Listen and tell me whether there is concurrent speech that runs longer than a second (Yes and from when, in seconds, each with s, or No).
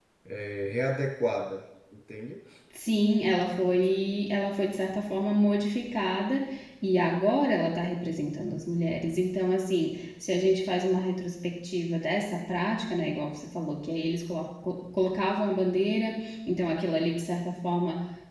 No